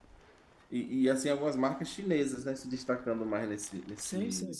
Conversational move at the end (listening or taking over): taking over